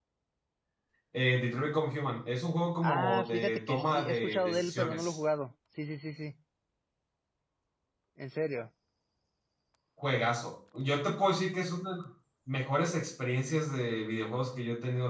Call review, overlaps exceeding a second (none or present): present